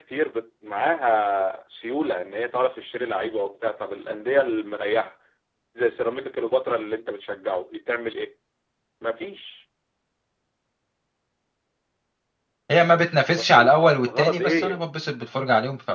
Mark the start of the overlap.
13.3 s

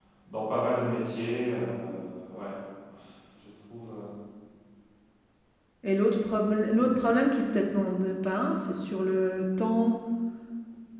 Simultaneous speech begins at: none

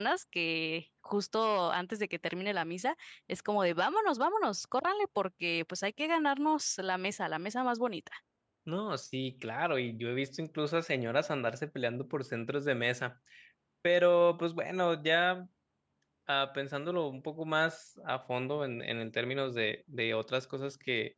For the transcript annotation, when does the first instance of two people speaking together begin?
none

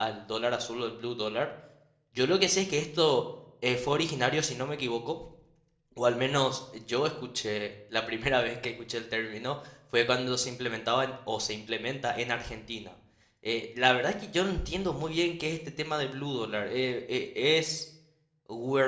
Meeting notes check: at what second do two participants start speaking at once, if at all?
none

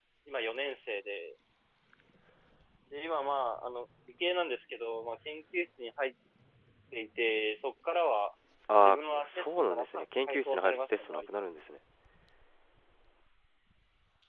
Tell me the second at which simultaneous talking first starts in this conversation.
8.8 s

